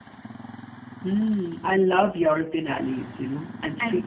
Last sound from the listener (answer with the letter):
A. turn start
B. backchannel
B